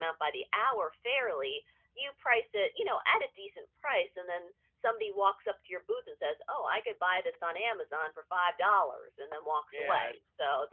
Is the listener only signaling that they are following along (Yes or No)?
No